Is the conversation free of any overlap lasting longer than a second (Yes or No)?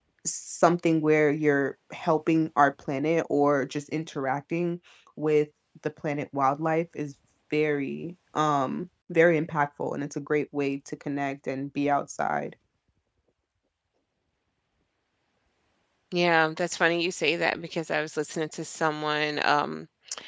Yes